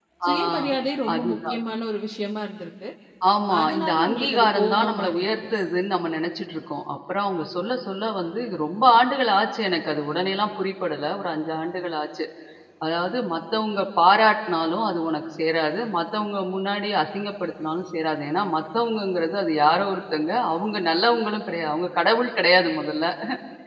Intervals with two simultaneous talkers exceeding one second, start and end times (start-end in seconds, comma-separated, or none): 3.6-5.3